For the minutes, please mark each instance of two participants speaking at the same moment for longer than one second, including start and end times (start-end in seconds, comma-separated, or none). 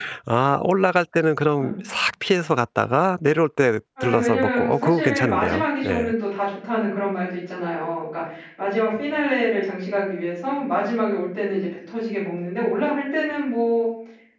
4.0-6.1